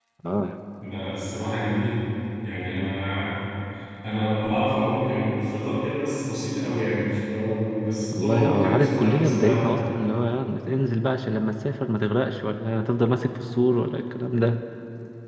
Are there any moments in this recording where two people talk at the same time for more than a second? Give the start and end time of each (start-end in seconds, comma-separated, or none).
8.1-9.8